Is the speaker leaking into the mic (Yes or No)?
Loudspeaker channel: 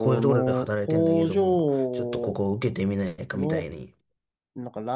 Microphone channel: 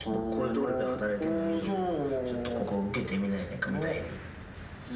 Yes